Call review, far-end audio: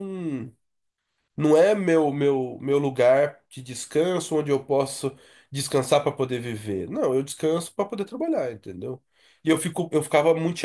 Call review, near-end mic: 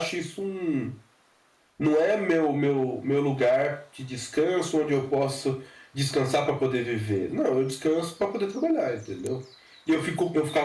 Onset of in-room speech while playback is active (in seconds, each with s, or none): none